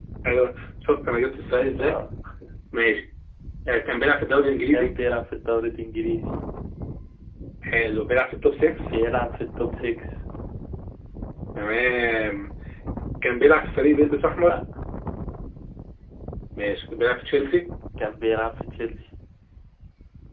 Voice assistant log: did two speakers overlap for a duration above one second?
No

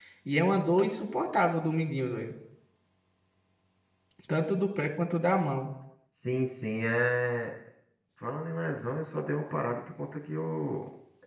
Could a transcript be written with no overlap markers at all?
Yes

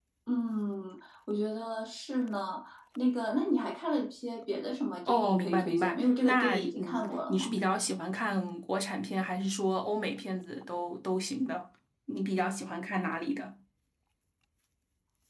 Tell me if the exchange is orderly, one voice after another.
No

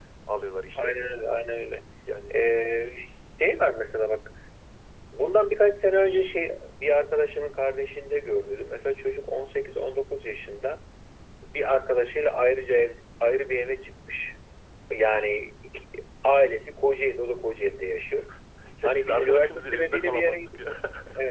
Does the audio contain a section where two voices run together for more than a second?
Yes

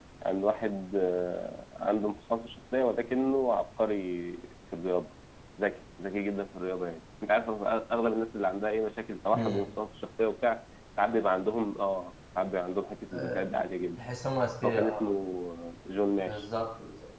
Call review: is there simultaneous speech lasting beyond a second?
No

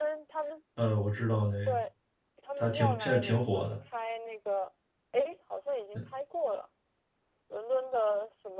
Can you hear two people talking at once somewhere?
Yes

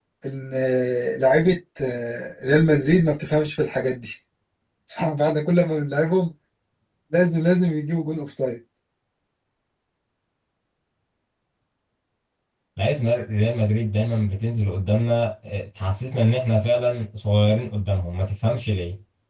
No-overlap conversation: Yes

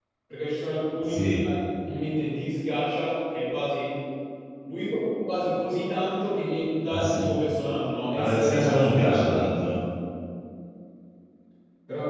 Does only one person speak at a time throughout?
No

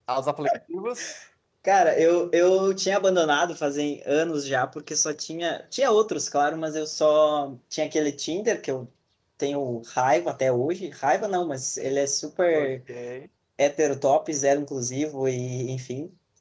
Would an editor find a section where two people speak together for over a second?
No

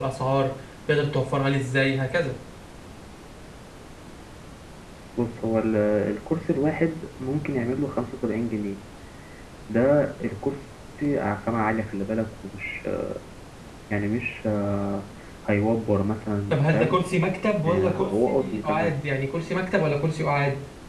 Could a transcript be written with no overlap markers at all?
No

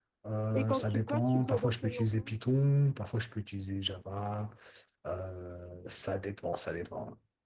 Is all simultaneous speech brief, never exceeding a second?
No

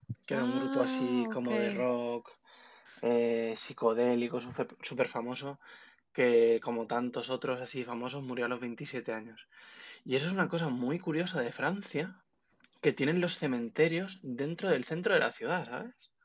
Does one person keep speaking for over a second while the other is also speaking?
Yes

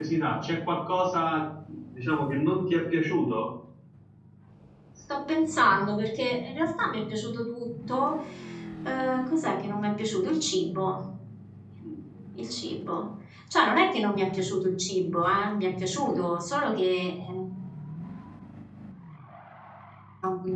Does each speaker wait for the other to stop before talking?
Yes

